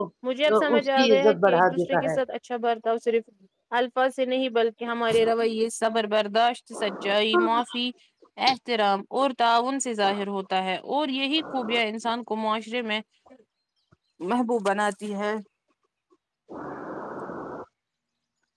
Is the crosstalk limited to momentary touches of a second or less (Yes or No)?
No